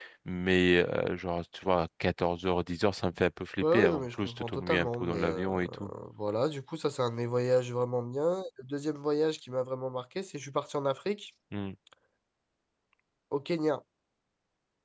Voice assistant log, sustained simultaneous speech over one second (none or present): present